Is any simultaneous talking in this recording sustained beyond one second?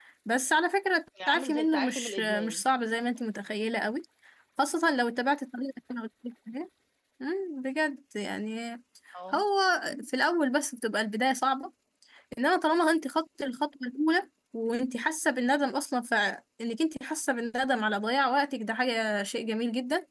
Yes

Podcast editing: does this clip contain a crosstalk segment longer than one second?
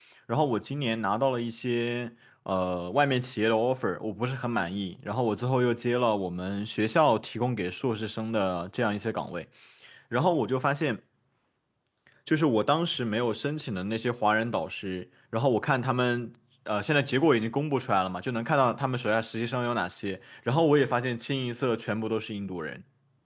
No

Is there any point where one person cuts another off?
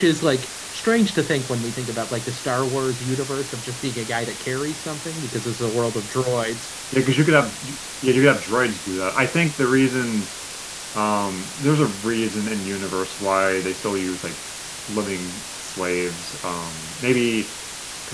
No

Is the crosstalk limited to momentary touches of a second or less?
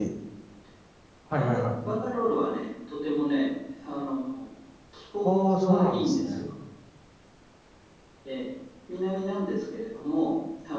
No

